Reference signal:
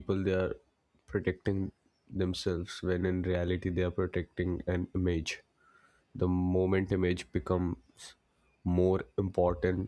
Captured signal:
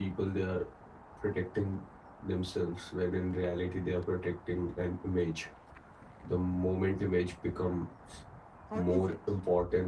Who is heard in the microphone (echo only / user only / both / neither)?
both